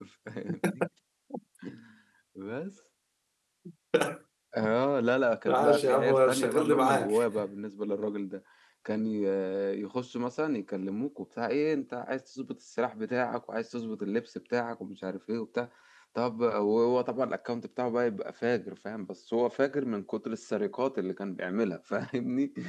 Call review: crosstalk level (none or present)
present